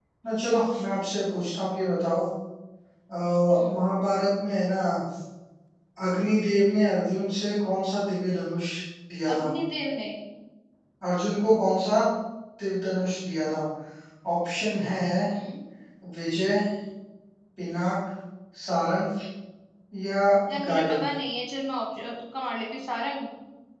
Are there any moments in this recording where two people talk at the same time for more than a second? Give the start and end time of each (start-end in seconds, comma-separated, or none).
none